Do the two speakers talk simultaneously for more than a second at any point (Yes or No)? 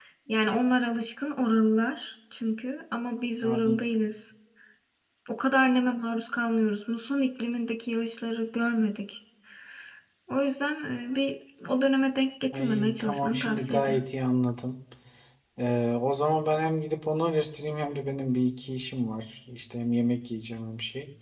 Yes